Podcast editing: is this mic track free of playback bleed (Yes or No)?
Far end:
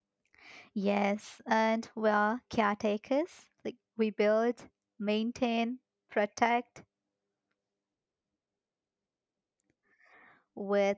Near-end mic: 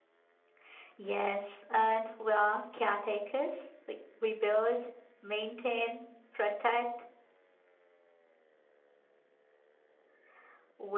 No